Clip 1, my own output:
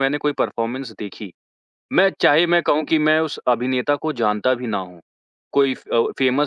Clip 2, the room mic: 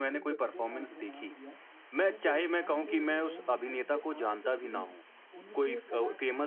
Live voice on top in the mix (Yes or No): No